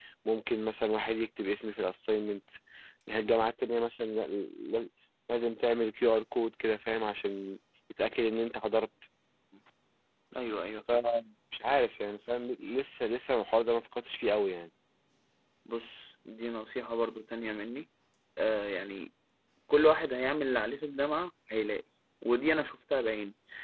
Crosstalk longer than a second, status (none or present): none